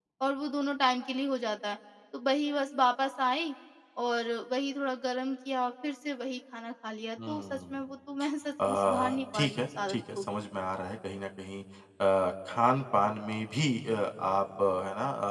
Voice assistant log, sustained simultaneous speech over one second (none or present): present